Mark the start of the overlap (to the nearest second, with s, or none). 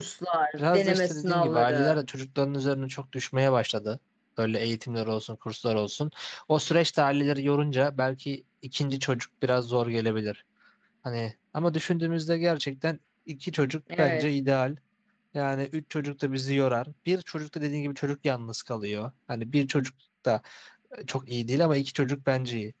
1 s